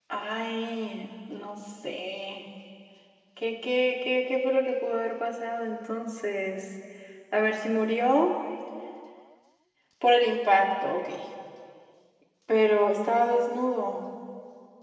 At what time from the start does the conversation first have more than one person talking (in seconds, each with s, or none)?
none